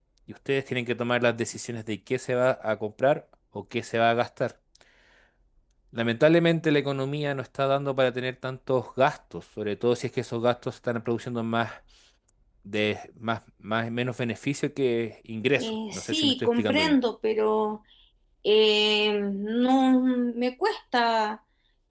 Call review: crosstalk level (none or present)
present